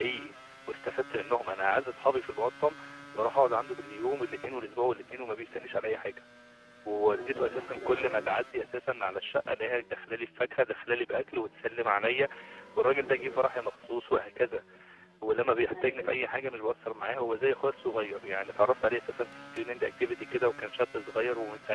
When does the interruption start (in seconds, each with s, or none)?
6.9 s